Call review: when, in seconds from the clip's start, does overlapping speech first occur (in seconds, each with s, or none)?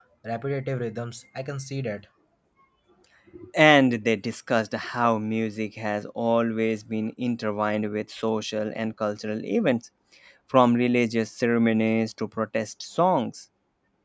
none